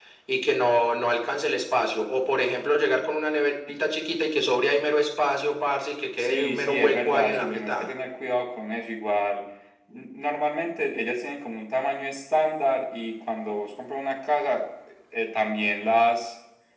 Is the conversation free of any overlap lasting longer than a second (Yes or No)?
No